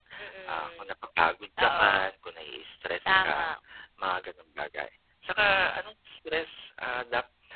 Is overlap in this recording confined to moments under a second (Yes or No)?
Yes